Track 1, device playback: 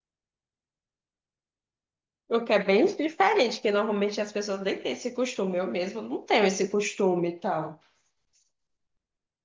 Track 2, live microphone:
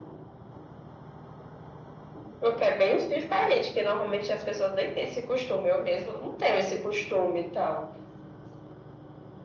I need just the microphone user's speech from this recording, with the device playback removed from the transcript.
none

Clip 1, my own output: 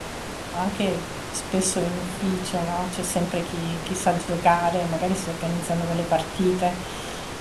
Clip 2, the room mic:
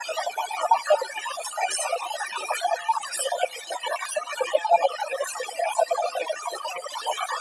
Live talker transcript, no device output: none

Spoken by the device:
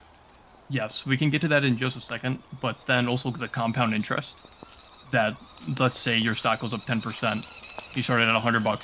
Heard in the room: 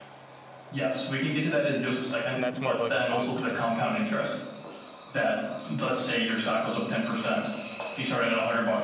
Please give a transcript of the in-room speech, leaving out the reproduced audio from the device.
And that's more of like a long term,

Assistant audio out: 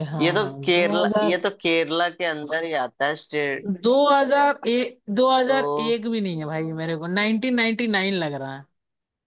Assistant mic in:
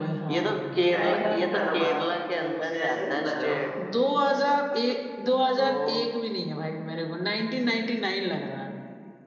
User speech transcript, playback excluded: टाइप तो नहीं कर रहे हो बार बार पूछ रहे हो मुझसे ऐसा क्यों कर रहे हो

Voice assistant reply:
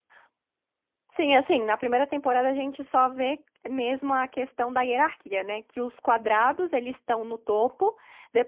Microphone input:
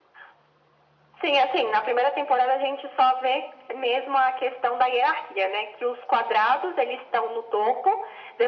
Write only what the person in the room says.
none

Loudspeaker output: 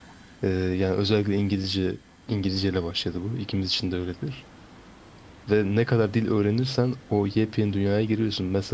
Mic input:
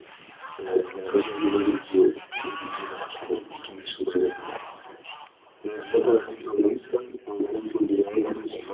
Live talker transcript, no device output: none

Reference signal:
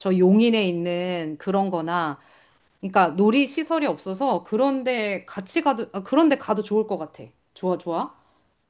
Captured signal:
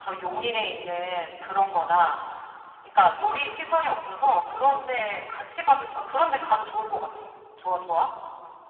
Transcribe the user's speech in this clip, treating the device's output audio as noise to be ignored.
none

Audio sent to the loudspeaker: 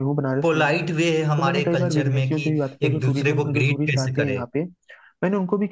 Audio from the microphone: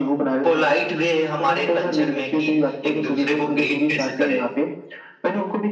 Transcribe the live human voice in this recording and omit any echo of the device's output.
none

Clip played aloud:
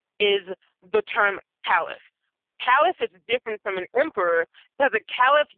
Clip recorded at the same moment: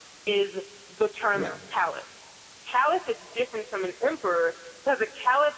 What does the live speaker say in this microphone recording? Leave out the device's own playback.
no?

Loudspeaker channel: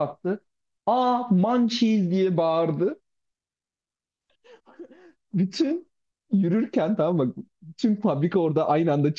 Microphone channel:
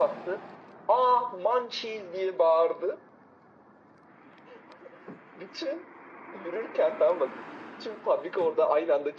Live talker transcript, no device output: none

